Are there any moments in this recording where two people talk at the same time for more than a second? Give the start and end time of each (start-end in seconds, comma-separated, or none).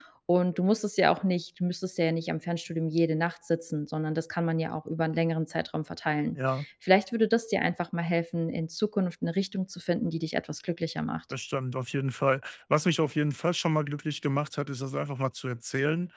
none